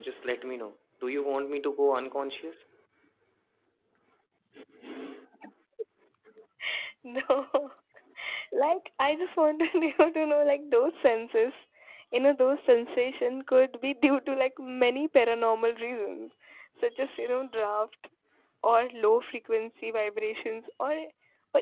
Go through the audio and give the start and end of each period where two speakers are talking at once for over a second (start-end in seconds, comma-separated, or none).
none